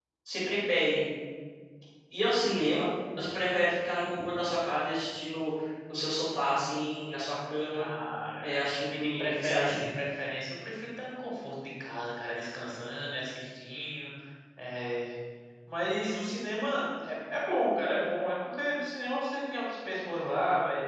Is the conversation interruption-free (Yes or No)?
No